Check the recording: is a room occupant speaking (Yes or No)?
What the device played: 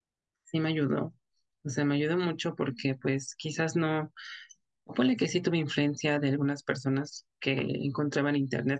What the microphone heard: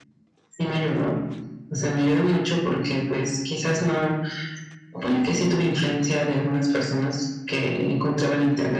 No